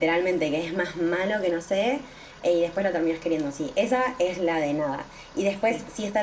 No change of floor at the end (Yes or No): Yes